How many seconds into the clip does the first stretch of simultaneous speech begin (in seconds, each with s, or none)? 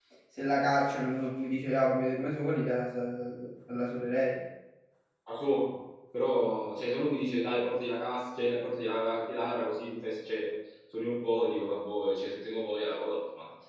none